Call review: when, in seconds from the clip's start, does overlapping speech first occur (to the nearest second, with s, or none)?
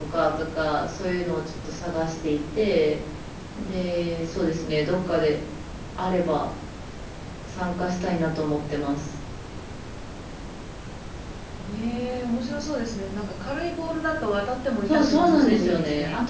15 s